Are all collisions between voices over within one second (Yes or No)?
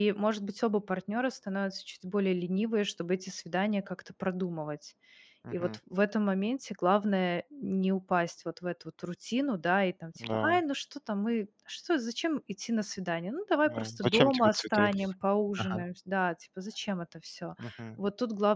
No